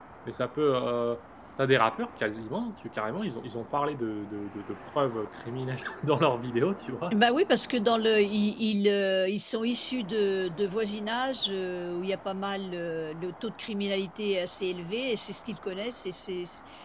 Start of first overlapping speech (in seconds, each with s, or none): none